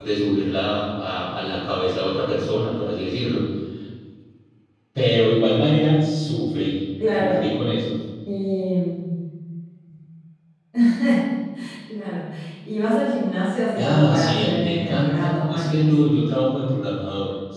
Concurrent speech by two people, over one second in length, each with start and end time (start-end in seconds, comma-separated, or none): 13.8-16.0